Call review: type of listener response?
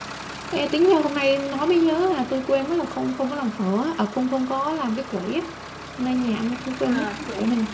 listening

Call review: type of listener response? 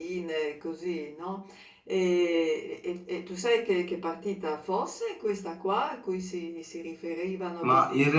taking over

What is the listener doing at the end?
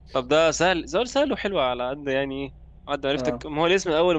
listening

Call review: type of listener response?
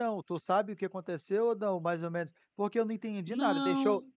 listening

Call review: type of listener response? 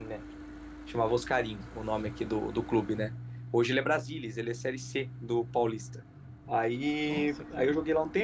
listening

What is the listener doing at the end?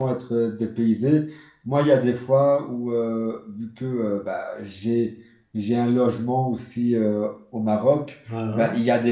listening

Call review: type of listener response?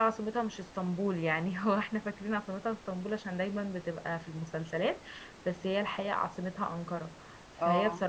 listening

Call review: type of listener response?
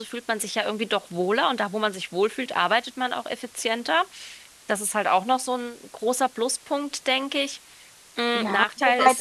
taking over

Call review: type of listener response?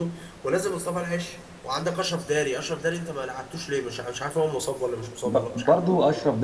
taking over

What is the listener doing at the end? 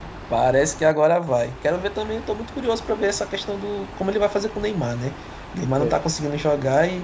listening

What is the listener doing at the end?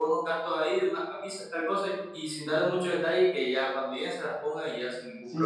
taking over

